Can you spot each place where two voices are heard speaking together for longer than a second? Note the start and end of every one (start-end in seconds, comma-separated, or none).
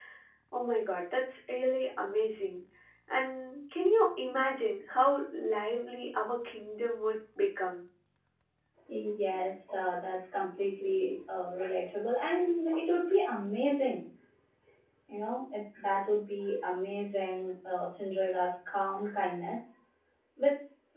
none